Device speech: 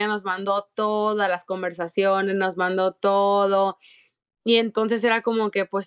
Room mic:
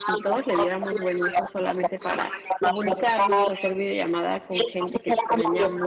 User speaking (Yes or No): Yes